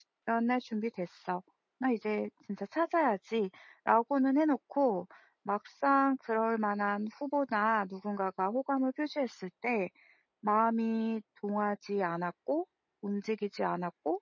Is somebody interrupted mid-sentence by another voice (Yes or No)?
No